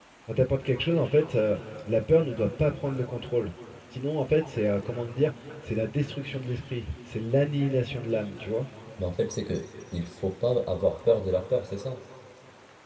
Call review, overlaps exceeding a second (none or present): none